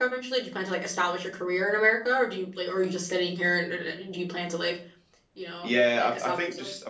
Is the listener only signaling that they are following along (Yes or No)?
No